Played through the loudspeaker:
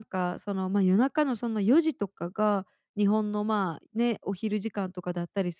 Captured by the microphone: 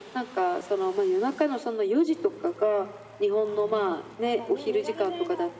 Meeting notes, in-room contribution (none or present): present